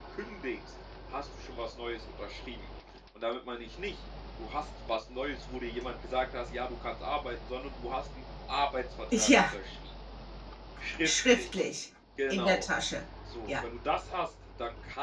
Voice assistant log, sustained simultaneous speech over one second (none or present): none